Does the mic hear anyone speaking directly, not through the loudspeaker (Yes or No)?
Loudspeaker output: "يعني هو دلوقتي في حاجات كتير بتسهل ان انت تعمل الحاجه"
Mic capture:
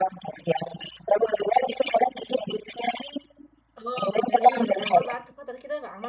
Yes